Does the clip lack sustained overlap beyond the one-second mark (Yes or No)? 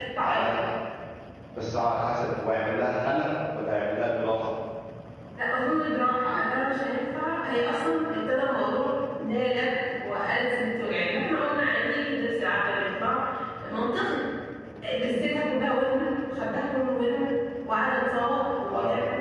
Yes